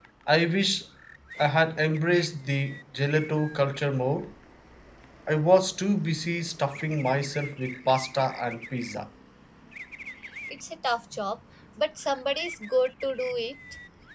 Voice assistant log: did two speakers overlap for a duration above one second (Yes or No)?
No